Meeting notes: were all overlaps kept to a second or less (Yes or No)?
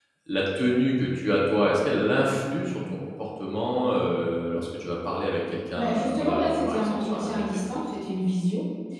No